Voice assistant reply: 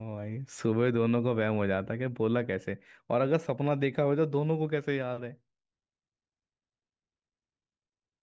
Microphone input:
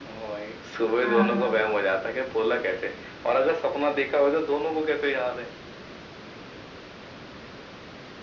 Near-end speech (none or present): present